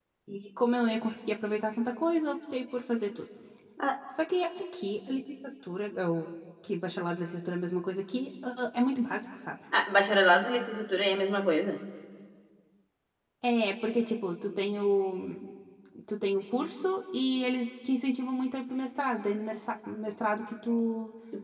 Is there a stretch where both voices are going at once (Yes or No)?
No